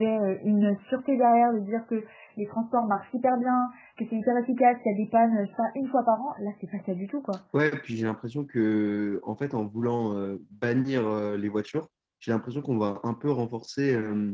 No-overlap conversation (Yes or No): Yes